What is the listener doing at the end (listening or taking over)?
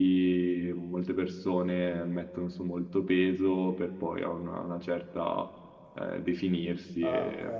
taking over